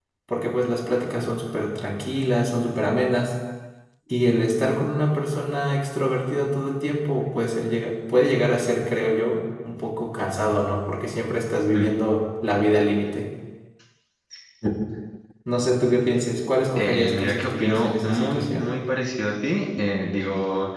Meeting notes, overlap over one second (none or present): present